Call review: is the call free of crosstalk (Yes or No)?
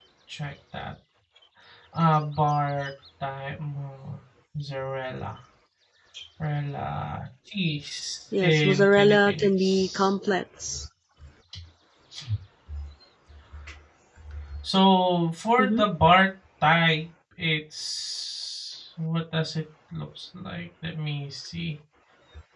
No